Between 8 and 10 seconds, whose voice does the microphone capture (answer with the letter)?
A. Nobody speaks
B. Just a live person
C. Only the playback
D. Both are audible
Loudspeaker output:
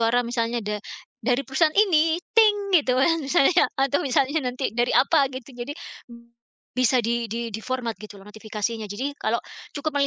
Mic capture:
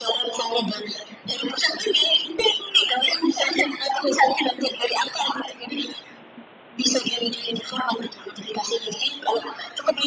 C